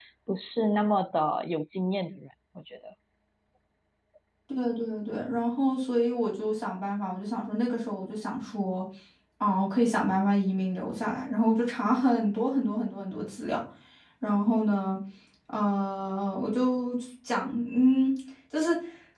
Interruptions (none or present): none